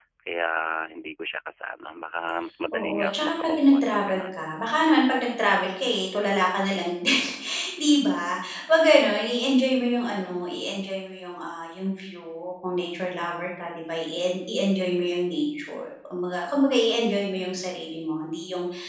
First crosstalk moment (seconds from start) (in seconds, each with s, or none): 2.7 s